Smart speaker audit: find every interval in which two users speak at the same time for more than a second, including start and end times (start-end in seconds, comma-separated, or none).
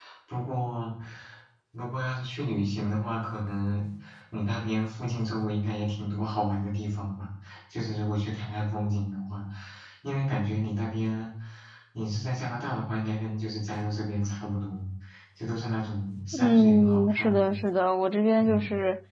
16.3-17.6